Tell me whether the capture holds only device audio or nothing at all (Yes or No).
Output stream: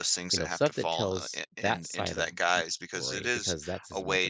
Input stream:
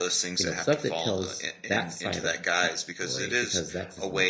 Yes